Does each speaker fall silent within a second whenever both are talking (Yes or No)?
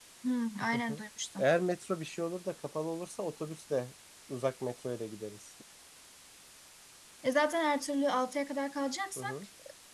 Yes